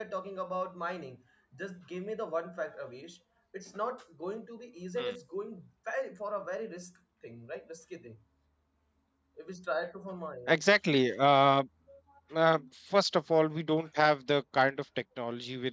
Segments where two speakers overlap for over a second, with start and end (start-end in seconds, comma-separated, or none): none